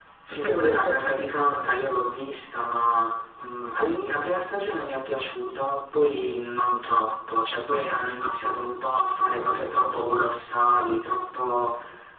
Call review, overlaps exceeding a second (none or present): present